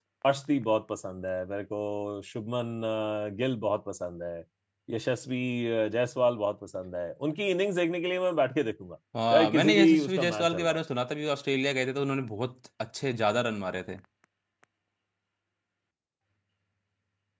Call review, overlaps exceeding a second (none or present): present